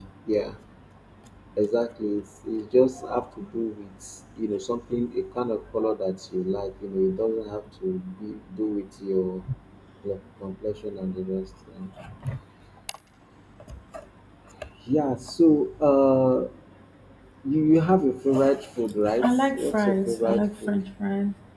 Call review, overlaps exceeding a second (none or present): present